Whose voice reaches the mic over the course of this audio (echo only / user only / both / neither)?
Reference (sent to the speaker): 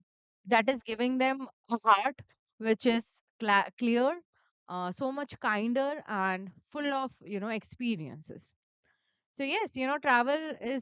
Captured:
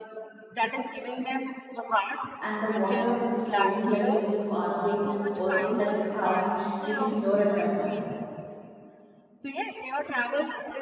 both